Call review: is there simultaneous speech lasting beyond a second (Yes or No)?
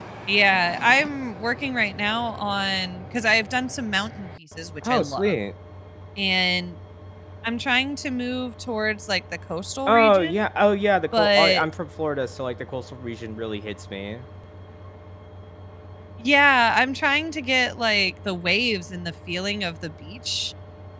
No